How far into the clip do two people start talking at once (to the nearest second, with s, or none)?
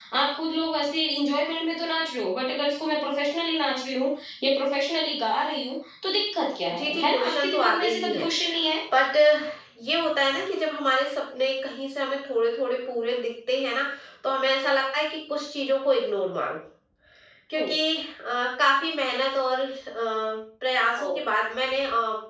7 s